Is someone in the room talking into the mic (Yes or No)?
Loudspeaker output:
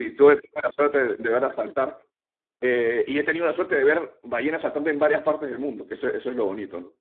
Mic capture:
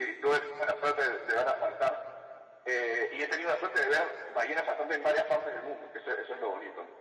No